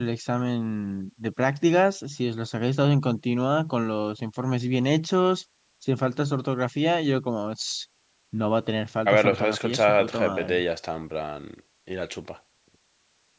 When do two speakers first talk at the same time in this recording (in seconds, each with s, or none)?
9.1 s